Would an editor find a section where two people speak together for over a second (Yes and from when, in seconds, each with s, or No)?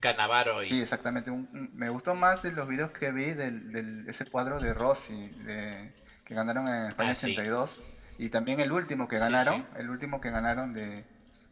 No